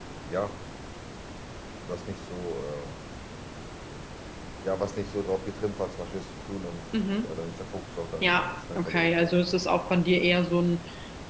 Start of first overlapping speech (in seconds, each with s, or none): 8.2 s